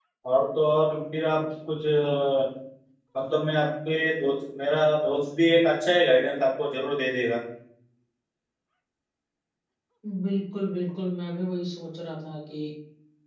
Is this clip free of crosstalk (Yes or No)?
Yes